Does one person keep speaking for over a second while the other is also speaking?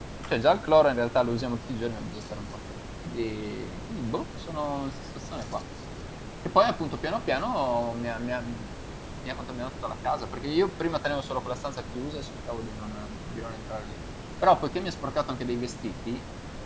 No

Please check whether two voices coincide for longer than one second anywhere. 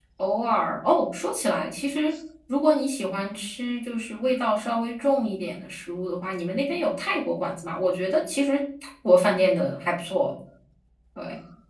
No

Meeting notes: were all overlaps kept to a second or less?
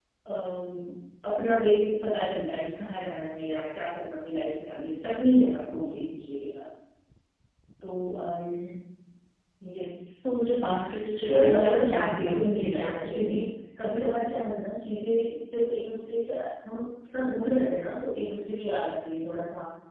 No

